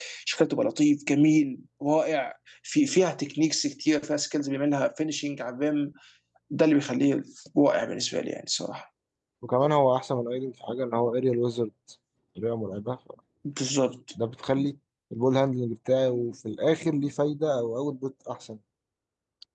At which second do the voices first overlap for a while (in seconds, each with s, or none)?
none